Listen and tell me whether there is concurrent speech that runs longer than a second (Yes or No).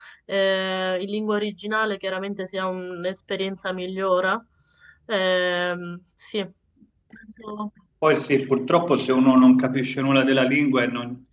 No